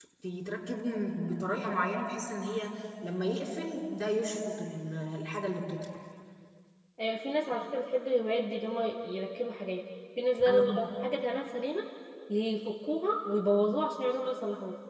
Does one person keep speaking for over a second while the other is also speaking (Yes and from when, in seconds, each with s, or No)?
No